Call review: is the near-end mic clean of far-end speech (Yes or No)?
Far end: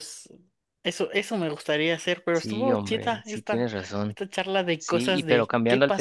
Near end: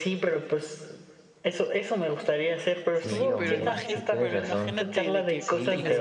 No